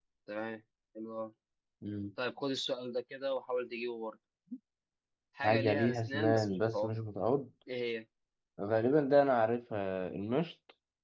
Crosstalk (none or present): present